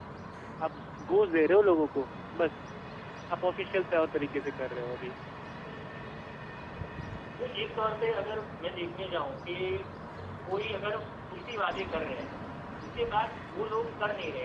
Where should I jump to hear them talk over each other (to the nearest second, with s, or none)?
none